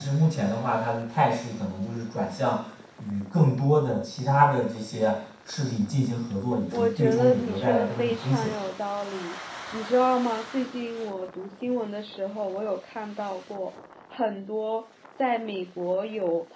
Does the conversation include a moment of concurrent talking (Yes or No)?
Yes